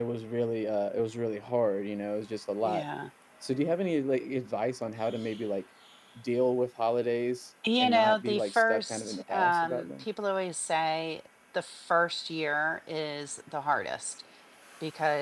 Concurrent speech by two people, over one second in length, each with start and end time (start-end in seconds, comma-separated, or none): 7.8-10.0